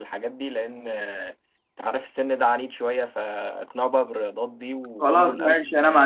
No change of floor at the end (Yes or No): No